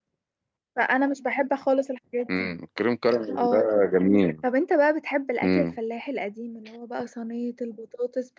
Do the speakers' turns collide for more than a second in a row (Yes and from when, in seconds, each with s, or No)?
No